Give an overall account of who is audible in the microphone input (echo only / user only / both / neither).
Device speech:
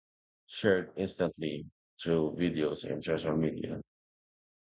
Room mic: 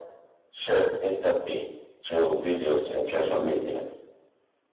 echo only